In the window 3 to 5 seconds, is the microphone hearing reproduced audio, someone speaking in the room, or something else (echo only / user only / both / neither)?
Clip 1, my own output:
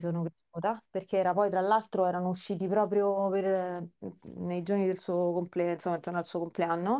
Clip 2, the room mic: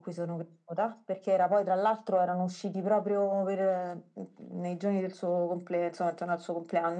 echo only